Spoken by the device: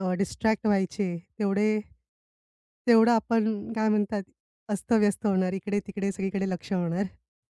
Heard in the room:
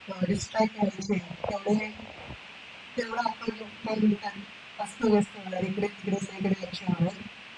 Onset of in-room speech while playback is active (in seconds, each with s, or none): none